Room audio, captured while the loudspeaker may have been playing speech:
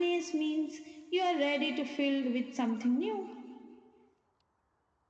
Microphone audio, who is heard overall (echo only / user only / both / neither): echo only